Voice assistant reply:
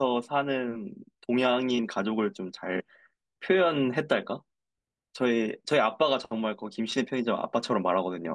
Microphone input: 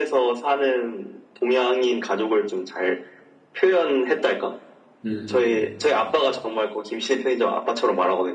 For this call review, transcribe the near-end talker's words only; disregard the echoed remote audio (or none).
음.